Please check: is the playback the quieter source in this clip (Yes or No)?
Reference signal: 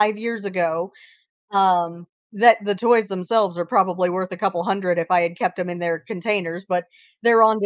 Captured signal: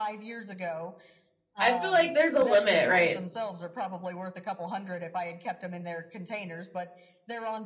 Yes